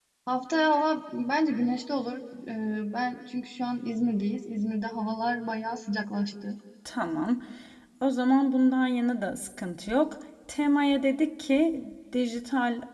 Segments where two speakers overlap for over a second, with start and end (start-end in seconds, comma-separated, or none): none